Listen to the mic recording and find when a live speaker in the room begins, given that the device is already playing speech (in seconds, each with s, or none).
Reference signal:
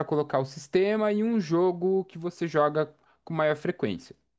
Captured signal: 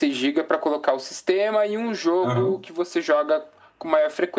2.2 s